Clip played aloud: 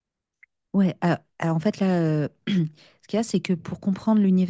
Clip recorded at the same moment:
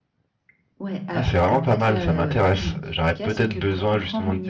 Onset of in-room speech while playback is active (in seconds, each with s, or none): 1.1 s